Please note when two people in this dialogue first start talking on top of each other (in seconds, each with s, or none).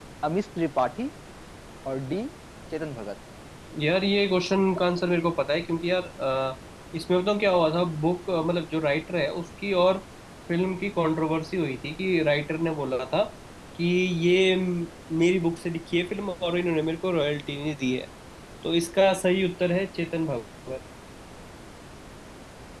none